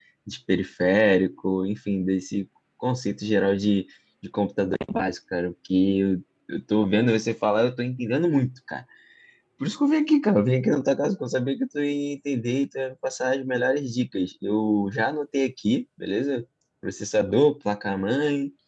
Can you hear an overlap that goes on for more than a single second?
No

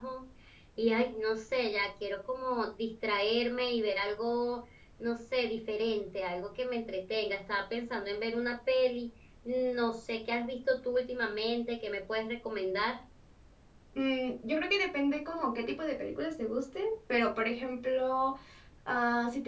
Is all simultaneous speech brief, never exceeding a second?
Yes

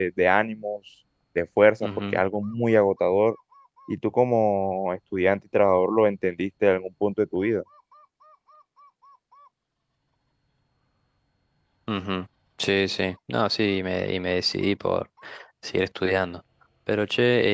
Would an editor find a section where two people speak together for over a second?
No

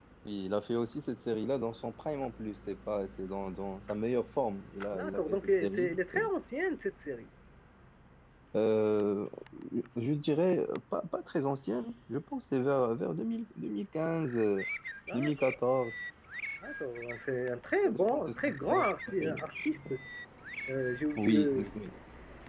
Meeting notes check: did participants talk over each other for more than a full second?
Yes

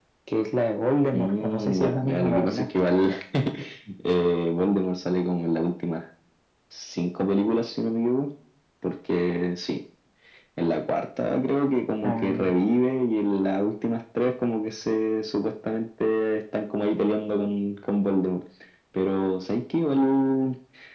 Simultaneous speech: Yes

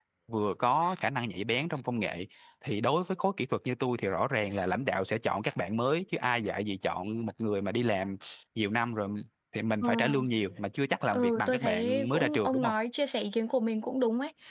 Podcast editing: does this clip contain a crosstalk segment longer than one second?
Yes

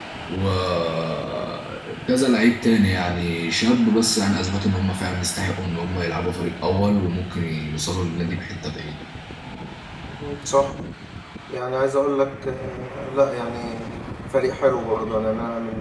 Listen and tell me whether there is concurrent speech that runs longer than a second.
No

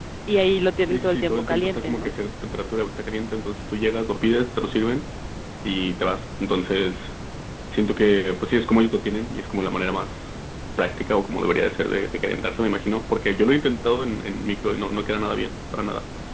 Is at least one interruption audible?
Yes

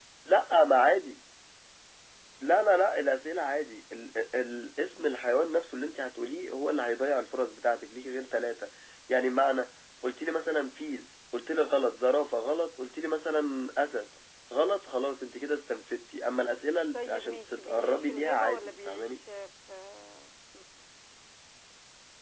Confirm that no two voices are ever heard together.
No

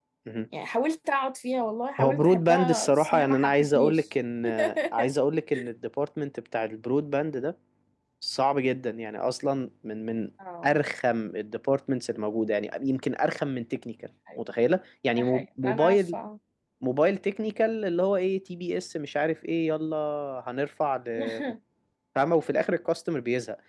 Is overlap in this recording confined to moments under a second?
No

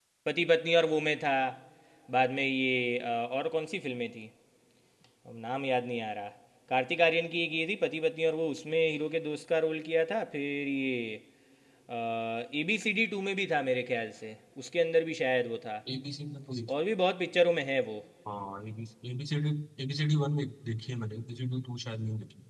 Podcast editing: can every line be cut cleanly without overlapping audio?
Yes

